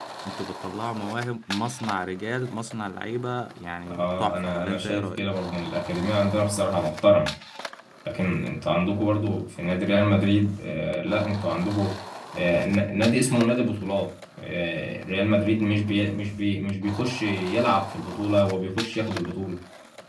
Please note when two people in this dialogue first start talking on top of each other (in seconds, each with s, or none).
3.9 s